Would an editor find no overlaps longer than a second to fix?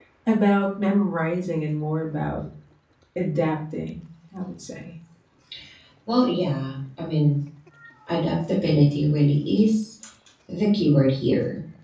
Yes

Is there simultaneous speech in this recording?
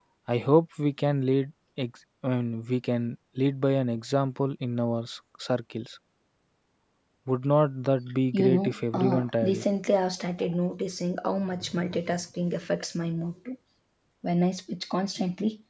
Yes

